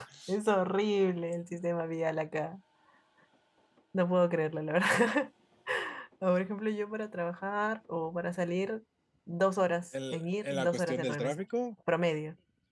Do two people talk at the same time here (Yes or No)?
Yes